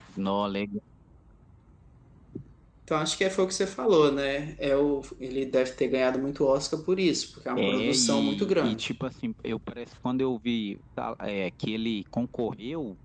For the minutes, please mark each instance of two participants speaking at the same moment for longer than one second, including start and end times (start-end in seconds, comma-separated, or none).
7.6-8.9